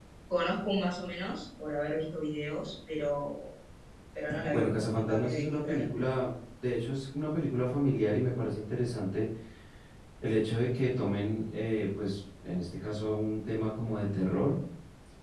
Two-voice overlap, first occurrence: 4.4 s

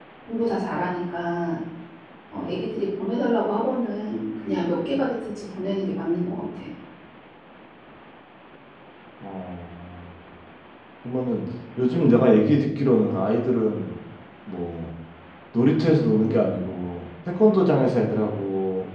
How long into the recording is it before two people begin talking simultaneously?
none

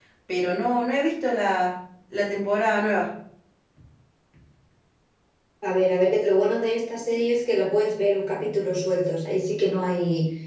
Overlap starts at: none

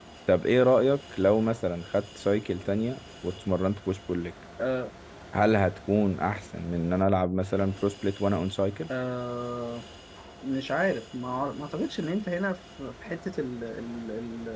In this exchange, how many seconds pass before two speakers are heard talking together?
none

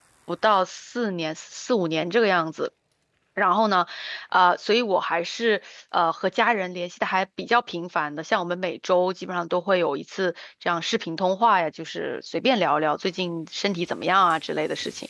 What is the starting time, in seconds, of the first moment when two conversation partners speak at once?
none

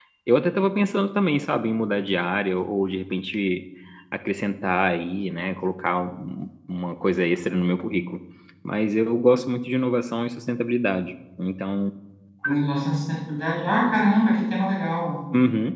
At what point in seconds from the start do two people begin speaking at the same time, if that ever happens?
none

